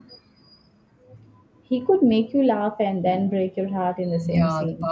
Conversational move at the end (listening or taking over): taking over